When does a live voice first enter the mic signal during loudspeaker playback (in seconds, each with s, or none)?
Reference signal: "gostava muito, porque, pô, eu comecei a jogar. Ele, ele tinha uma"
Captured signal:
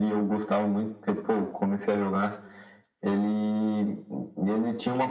none